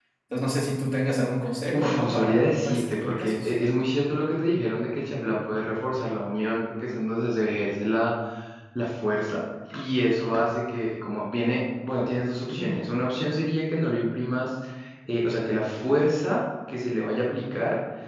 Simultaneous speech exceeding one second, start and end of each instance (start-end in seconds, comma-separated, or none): 1.7-3.5